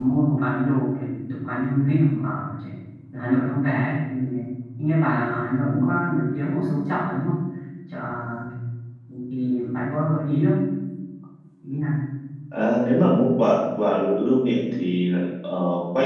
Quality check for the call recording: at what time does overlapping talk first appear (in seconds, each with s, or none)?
none